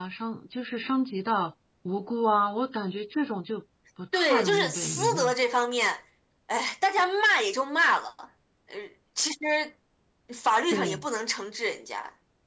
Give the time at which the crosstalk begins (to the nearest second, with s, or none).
4 s